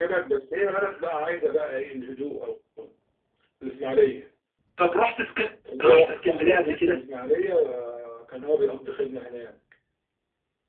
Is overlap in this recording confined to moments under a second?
No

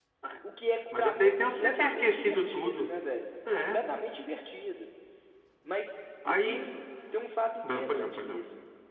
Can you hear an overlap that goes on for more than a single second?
Yes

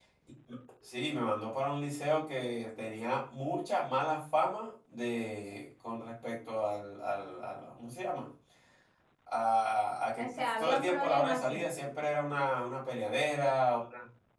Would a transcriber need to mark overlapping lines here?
Yes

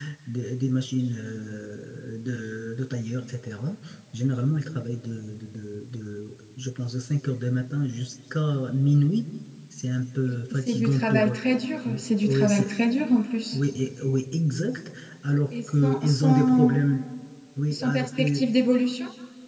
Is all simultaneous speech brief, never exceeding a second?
No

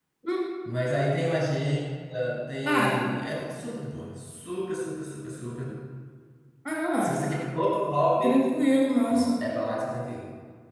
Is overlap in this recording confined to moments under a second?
Yes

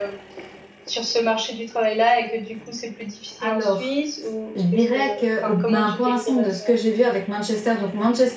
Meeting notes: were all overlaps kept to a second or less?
No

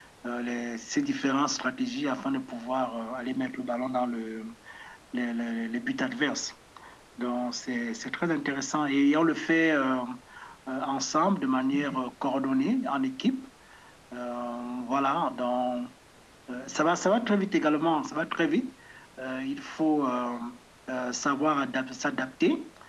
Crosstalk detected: No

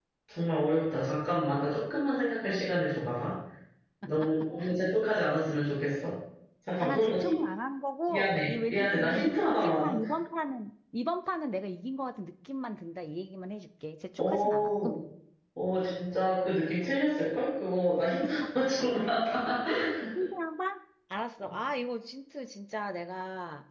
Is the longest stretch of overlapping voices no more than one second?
No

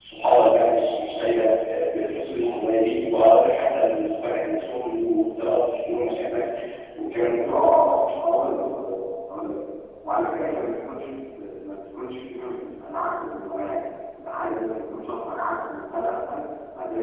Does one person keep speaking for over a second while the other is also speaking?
No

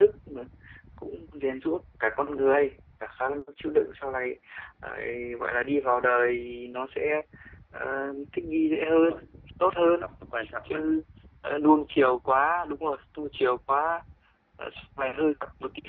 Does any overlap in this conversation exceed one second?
No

